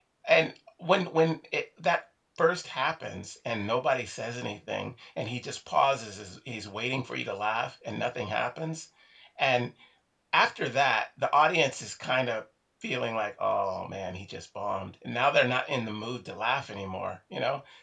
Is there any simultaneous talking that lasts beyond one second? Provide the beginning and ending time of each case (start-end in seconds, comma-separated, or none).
none